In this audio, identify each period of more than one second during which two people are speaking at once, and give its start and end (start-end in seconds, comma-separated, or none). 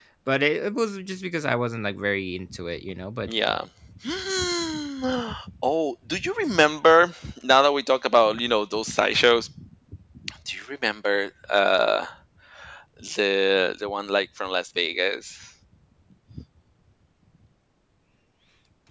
none